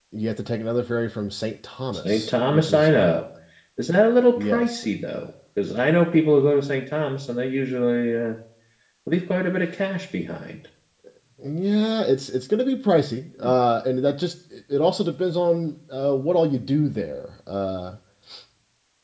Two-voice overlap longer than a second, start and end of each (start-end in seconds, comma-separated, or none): 1.9-3.2